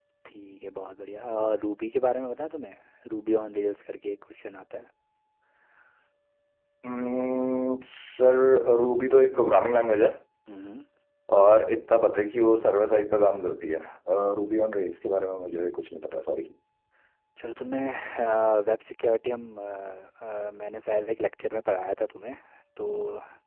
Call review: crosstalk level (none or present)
none